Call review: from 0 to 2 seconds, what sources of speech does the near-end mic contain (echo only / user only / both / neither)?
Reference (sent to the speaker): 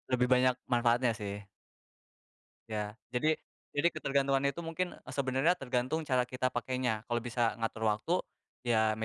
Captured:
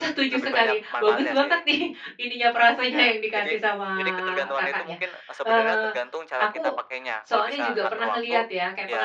both